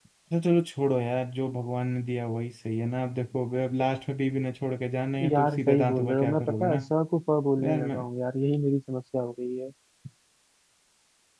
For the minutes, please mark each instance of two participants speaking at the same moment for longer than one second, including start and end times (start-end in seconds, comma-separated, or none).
5.3-6.8